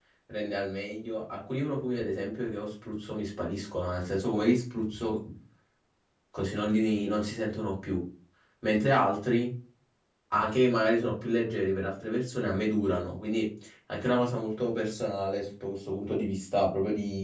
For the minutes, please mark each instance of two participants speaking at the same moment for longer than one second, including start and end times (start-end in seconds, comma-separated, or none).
none